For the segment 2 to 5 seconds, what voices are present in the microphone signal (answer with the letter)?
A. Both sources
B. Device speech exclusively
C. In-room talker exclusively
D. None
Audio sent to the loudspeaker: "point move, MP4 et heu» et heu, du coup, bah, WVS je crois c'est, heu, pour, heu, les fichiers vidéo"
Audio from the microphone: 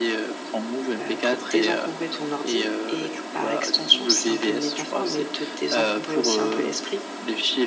A